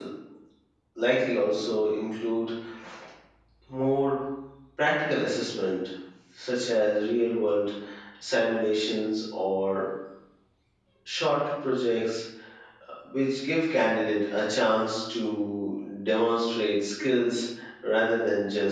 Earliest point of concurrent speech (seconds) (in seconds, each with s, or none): none